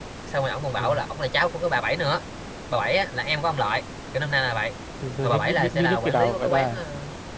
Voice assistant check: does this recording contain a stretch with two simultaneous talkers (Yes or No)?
Yes